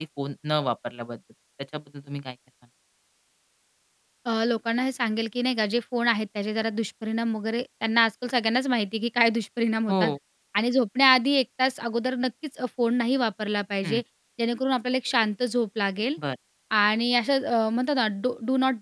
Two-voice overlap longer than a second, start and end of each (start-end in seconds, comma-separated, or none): none